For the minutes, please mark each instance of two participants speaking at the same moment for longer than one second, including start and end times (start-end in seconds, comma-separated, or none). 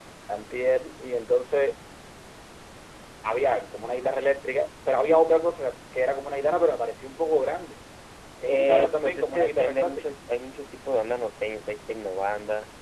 8.5-10.1